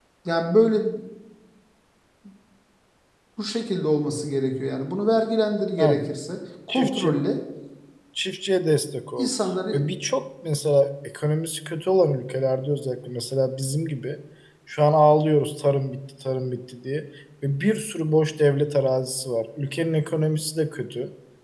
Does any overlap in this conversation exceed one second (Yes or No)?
No